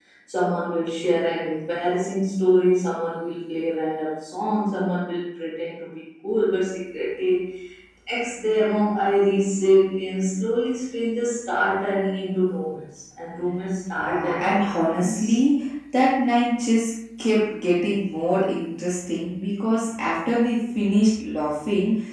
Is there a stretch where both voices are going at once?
Yes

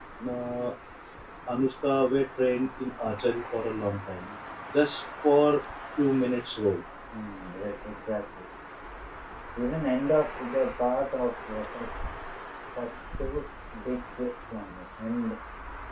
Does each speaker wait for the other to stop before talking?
Yes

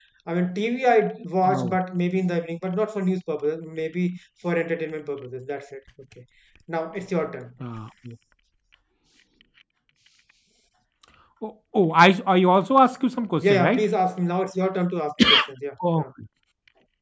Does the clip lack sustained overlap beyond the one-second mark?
Yes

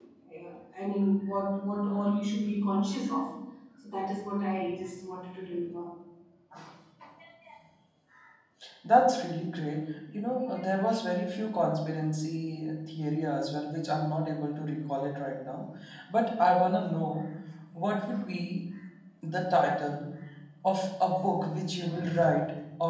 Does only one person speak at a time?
Yes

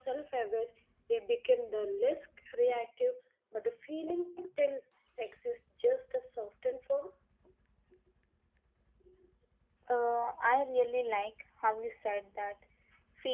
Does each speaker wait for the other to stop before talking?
Yes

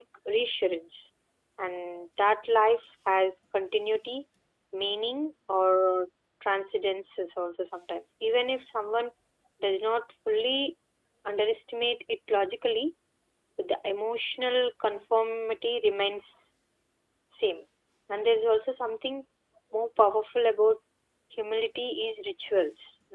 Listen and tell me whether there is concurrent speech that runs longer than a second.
No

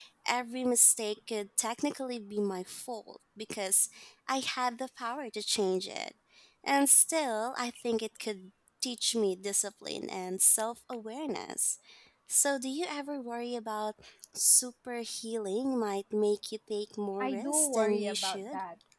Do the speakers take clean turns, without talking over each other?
No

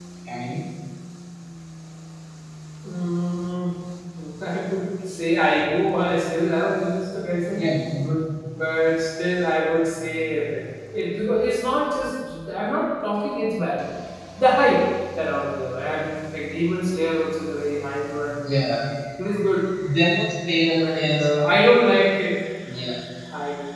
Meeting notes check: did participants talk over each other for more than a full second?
No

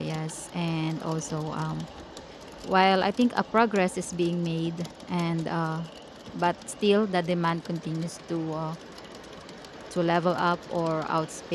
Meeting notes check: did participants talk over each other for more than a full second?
No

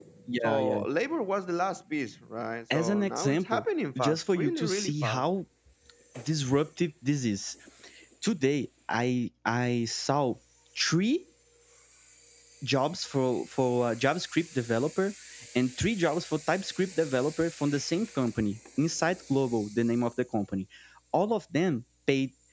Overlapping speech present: Yes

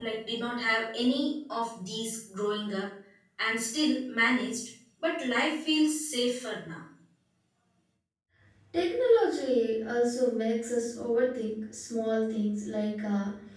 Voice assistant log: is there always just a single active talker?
Yes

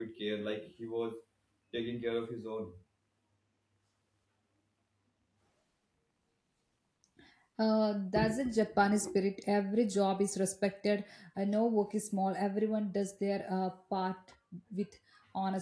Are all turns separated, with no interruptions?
Yes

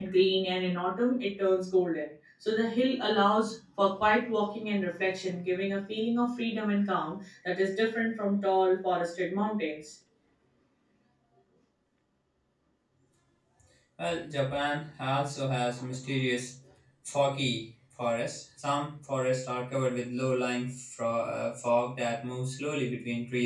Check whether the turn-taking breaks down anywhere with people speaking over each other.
No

